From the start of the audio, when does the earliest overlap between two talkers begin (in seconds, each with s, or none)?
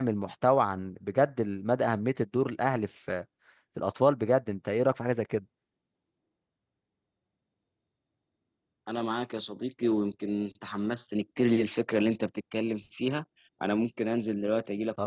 none